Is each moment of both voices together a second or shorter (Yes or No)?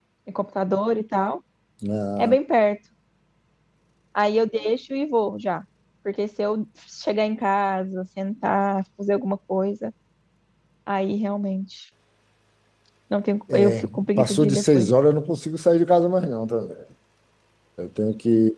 No